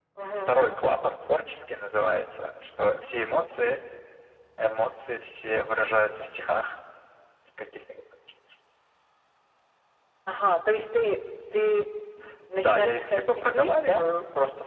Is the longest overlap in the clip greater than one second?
Yes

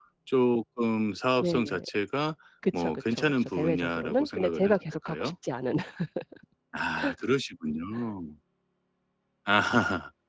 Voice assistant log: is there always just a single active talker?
No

